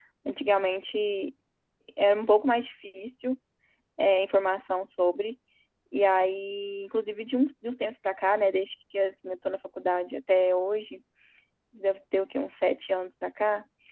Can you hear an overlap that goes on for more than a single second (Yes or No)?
No